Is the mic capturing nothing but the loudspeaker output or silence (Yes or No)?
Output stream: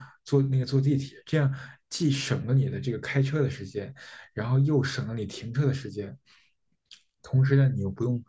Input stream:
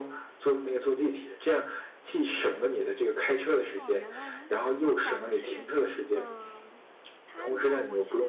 No